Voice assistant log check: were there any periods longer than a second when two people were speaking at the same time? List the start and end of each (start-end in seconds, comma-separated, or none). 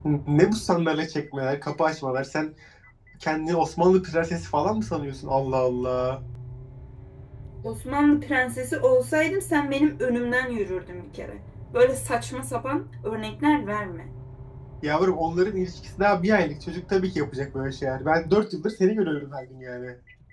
none